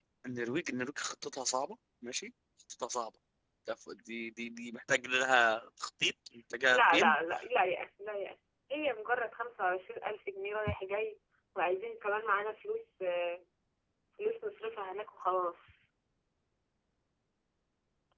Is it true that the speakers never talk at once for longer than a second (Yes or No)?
Yes